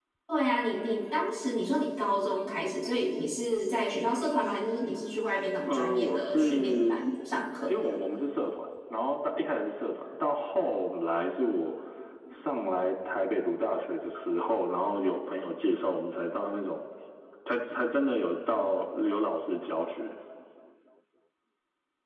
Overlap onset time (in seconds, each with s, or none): 5.7 s